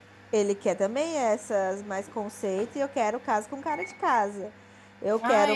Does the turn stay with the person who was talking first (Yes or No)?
No